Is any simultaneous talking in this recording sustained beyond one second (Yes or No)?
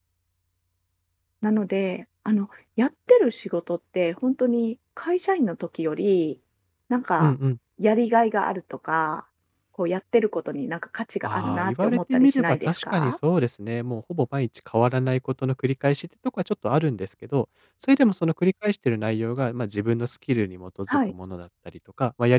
Yes